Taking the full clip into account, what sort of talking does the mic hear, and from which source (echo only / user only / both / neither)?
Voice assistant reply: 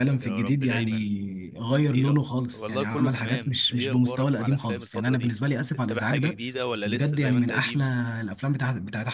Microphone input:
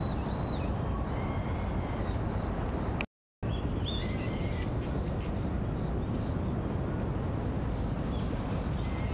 neither